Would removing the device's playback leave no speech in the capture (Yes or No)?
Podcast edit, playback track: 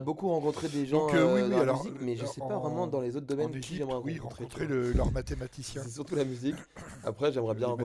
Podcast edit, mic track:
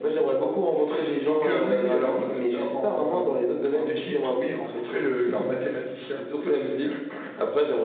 Yes